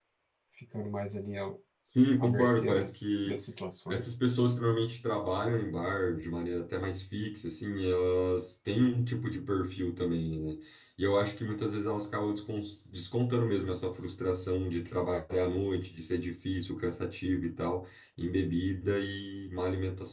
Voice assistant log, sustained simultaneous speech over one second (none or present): present